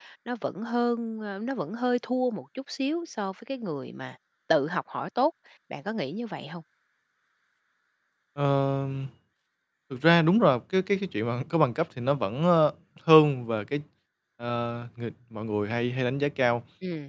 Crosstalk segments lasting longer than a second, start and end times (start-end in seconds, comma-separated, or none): none